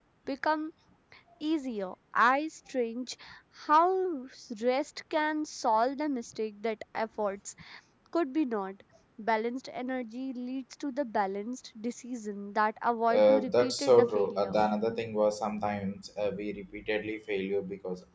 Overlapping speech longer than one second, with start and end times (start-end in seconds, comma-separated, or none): 13.1-14.5